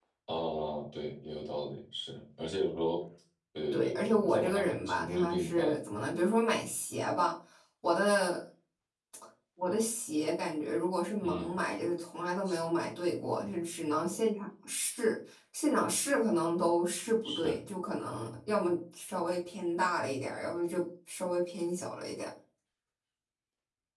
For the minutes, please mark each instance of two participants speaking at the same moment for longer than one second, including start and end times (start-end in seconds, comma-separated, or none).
3.7-5.8